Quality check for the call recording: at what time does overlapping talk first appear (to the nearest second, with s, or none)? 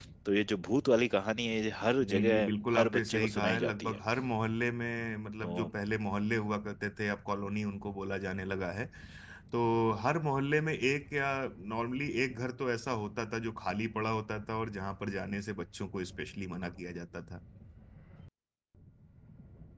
2 s